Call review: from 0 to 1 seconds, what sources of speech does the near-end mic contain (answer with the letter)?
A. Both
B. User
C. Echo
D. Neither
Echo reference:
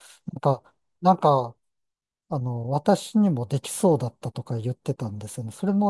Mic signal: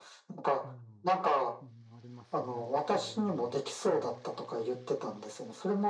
A